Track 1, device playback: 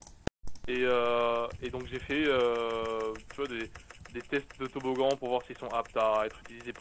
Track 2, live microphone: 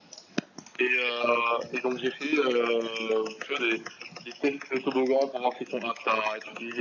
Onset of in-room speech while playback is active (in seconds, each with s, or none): none